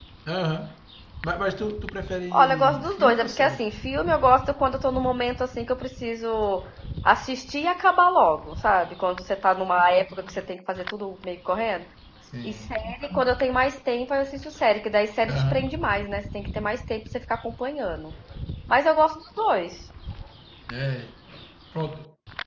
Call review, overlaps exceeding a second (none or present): present